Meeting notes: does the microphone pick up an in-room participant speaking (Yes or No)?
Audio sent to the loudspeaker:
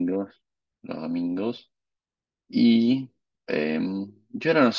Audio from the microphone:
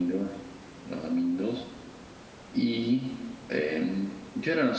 No